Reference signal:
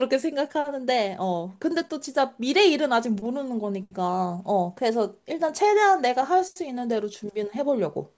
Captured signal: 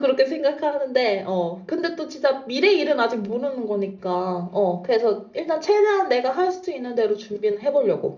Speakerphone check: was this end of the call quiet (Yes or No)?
Yes